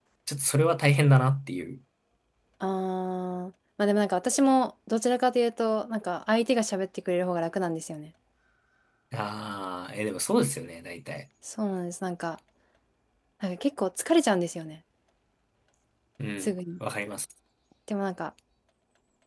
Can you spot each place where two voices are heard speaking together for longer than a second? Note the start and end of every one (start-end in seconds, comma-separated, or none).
none